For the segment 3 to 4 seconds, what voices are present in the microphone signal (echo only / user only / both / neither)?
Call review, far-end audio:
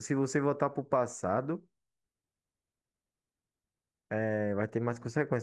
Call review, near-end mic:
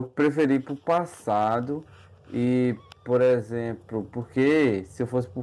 user only